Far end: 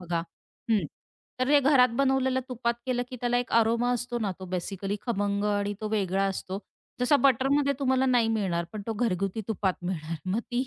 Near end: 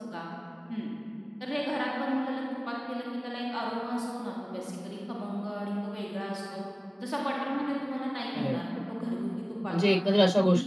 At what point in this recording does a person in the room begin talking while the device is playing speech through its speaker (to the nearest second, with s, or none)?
8 s